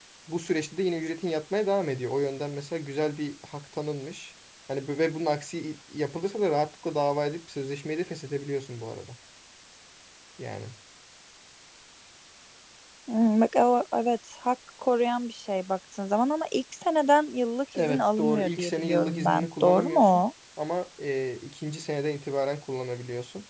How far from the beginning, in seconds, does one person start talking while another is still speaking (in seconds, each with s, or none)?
17.7 s